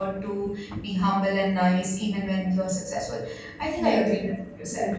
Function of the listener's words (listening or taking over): taking over